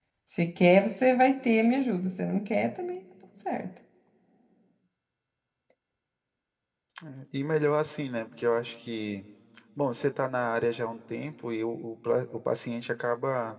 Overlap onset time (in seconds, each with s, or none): none